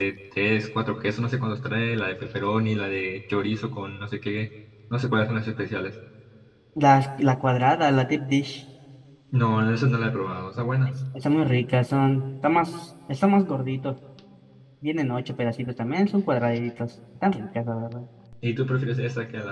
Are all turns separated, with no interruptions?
Yes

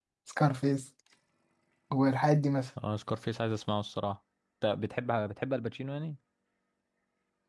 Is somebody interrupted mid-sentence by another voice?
No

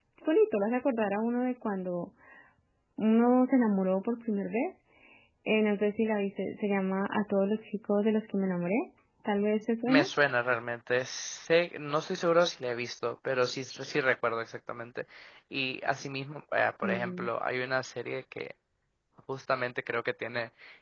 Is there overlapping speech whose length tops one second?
No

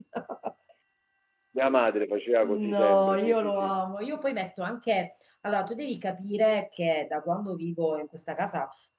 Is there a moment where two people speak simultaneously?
Yes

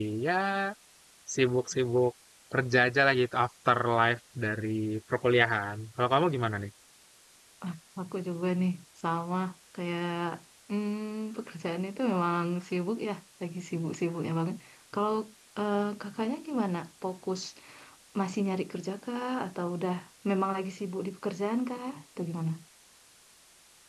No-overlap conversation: Yes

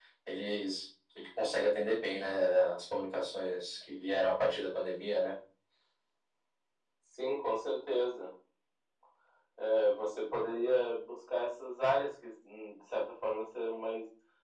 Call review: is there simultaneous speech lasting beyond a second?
No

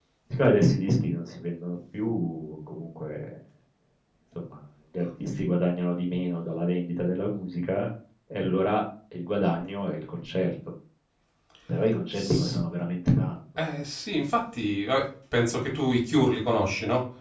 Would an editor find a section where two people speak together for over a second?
No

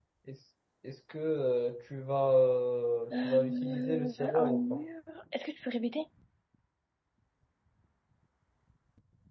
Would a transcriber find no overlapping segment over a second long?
No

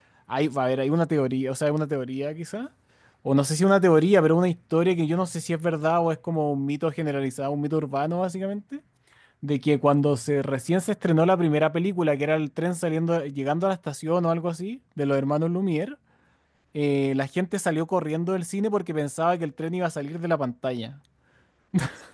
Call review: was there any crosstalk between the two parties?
No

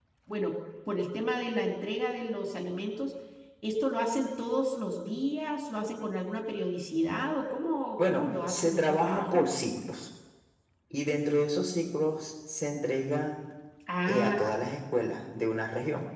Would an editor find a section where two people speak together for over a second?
Yes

